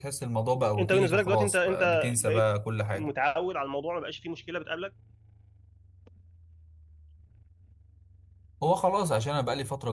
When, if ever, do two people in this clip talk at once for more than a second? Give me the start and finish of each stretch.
0.8-2.4

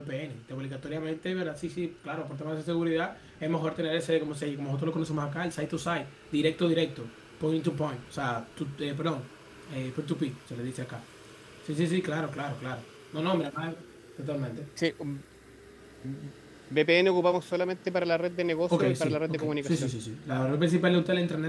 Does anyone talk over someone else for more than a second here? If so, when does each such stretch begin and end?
18.7-19.9

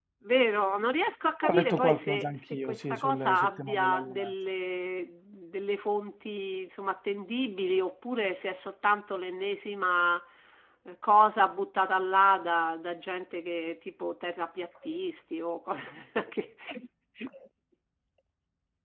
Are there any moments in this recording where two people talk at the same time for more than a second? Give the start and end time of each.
1.4-4.3

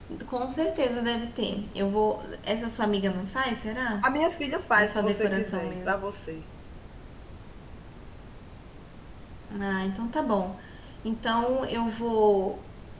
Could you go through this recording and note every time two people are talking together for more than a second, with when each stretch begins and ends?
4.7-5.9

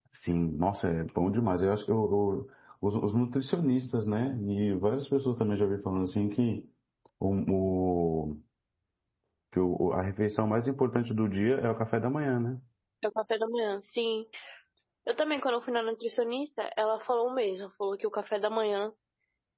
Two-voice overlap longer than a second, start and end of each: none

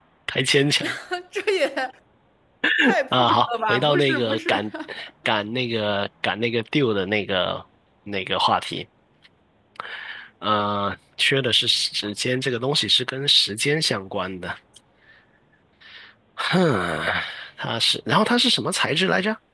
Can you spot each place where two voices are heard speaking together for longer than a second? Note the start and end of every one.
3.1-4.5

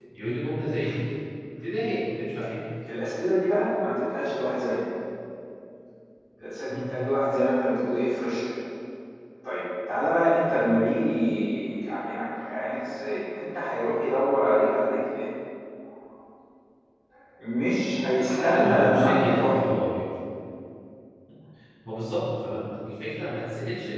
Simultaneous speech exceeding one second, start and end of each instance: 18.1-19.7

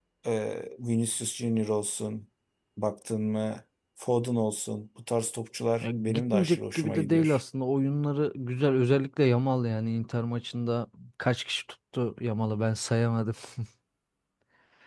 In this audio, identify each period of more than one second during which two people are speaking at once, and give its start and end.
5.8-7.4

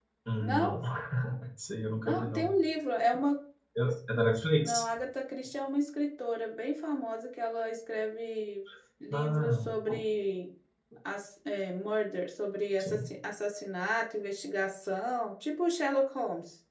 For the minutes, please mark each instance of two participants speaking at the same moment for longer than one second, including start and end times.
none

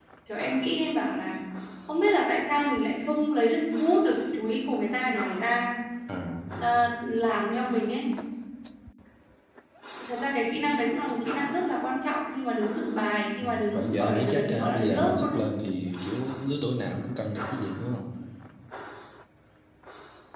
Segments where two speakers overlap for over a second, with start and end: 13.4-15.4

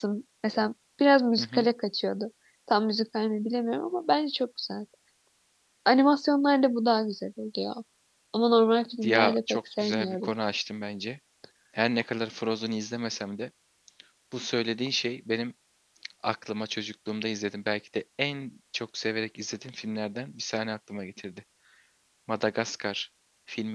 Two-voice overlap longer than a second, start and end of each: 9.0-10.3

